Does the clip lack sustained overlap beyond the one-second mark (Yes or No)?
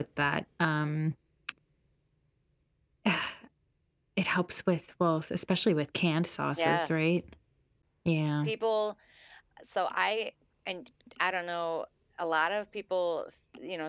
Yes